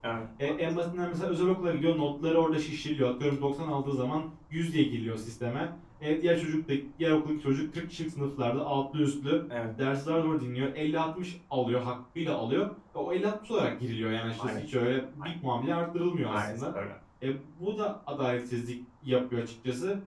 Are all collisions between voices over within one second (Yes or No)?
Yes